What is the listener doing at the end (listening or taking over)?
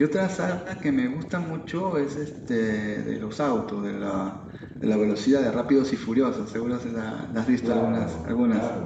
taking over